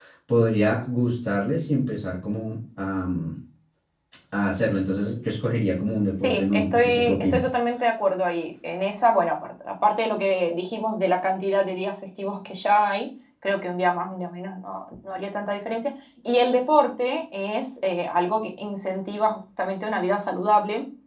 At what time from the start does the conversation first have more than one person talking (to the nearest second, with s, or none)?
6 s